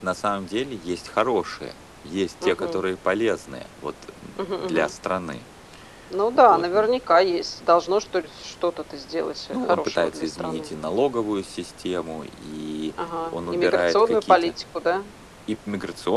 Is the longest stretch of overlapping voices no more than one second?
No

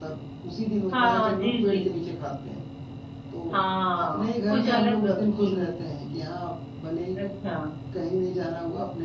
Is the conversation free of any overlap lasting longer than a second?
No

